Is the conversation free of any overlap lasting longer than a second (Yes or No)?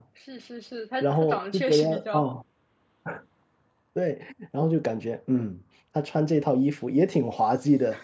No